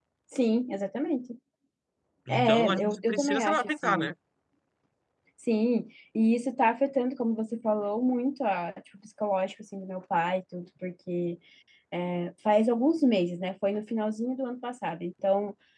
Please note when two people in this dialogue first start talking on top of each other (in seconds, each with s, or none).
2.3 s